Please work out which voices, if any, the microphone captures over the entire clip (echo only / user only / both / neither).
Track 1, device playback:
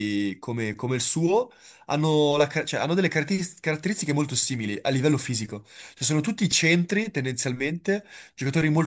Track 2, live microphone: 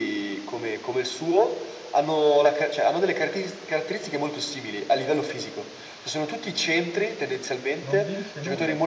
both